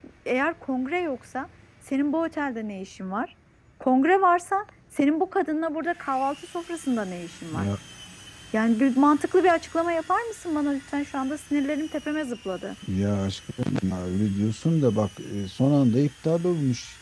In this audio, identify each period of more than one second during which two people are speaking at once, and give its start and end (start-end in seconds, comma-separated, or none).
none